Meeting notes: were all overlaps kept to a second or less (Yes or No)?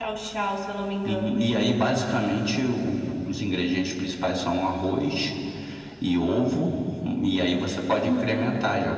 Yes